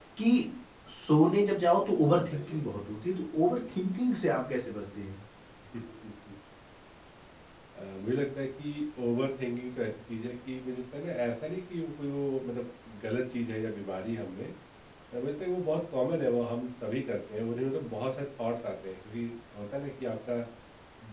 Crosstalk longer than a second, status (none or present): none